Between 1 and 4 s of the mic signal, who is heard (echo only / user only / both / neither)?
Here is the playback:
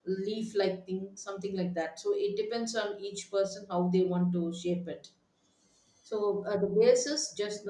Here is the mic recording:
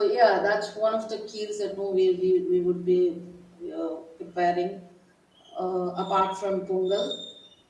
user only